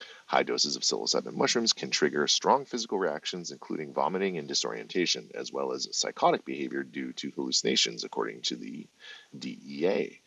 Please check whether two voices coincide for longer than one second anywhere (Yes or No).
No